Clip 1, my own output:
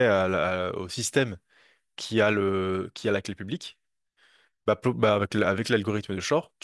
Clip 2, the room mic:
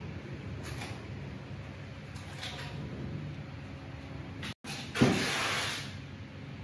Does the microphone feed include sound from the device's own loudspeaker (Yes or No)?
No